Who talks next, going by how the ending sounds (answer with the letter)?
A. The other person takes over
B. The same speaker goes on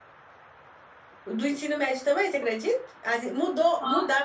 B